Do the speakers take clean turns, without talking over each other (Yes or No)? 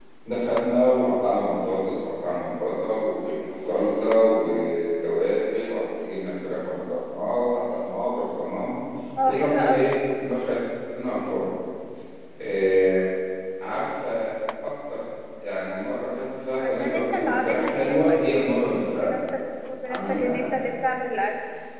No